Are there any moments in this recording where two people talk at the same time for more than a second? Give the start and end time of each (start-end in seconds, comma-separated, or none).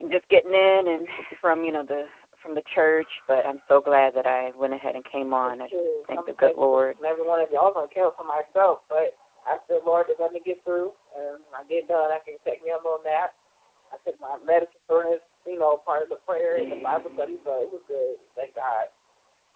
5.4-7.0